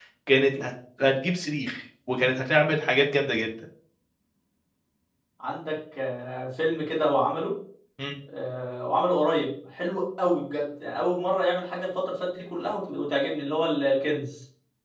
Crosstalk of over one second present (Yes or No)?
No